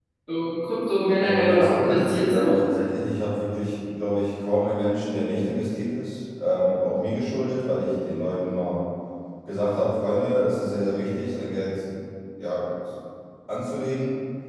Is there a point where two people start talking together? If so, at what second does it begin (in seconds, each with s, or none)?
1.2 s